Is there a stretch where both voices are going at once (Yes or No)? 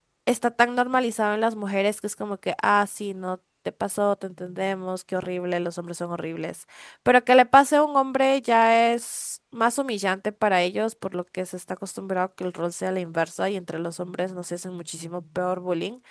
No